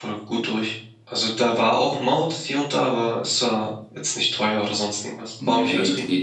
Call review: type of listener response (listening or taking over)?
taking over